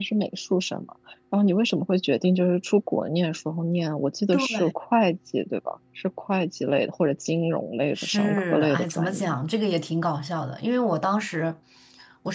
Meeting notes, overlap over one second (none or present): present